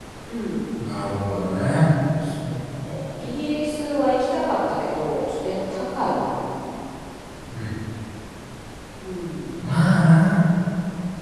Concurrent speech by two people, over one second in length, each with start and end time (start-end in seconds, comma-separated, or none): none